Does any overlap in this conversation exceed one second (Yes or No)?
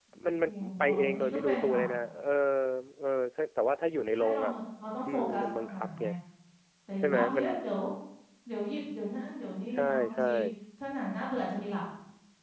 Yes